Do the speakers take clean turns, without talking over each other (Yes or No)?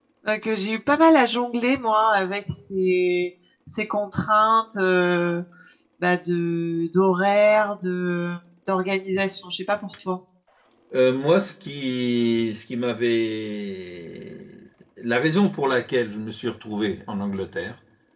Yes